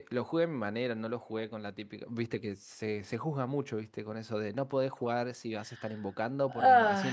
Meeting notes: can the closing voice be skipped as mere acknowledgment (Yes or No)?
Yes